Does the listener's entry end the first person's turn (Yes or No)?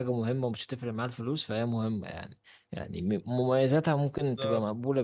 No